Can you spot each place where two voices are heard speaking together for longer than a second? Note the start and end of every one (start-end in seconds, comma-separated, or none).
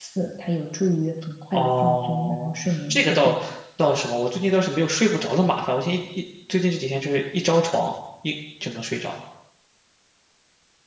1.5-3.3